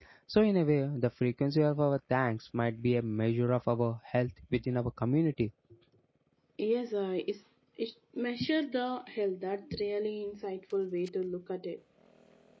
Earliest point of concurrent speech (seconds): none

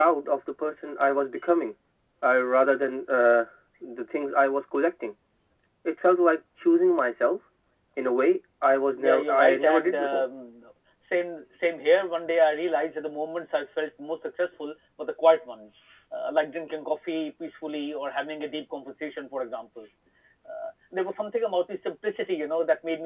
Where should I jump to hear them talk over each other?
8.9 s

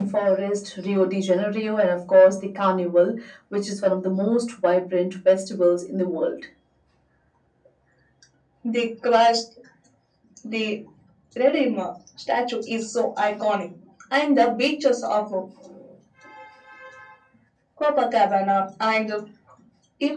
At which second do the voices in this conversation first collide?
none

